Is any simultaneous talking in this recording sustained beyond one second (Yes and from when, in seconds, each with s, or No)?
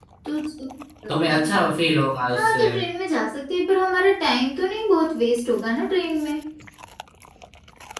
No